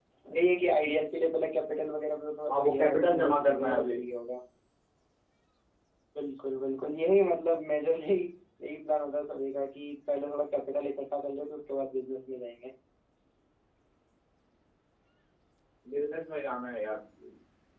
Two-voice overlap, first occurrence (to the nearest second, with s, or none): 2 s